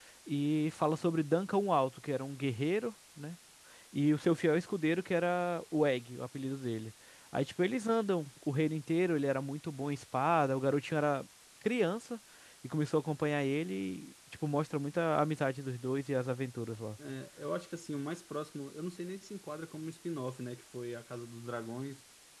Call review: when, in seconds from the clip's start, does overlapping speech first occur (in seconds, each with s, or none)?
none